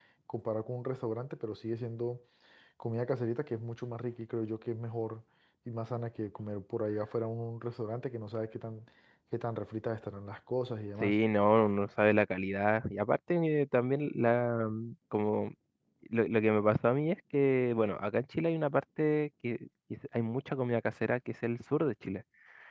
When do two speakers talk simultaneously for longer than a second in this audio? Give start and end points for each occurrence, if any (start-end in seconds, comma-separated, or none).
none